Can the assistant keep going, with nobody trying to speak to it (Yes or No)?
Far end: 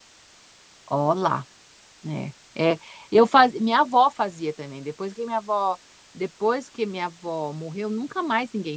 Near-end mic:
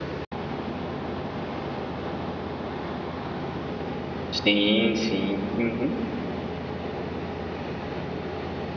No